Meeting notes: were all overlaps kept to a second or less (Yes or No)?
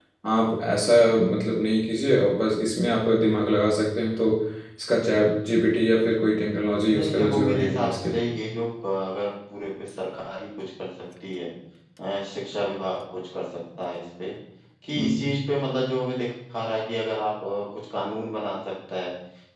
No